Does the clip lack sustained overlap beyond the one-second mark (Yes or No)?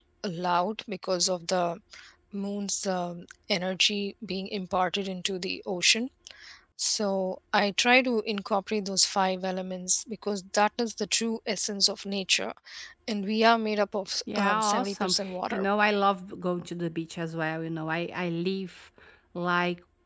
No